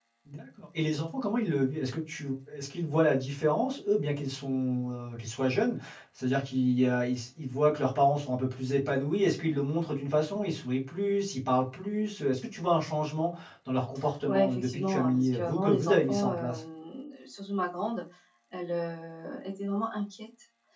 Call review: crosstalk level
present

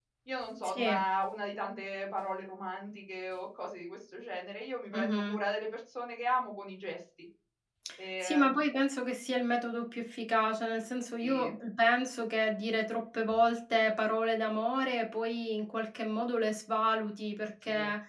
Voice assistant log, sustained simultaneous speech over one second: none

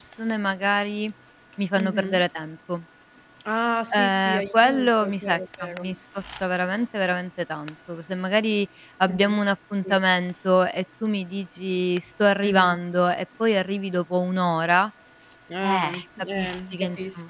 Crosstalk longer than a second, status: present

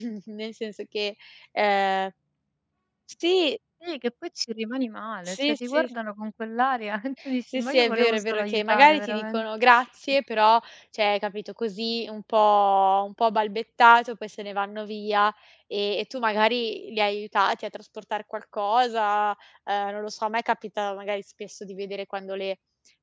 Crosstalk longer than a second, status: present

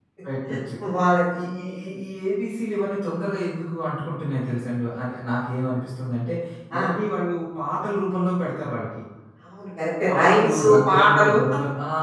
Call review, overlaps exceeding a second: present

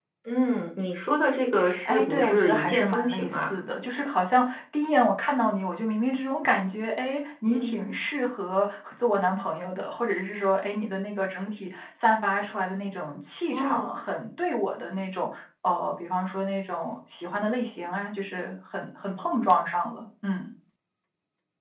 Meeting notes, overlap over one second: present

